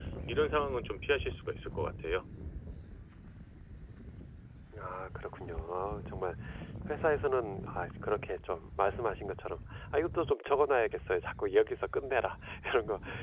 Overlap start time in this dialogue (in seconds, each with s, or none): none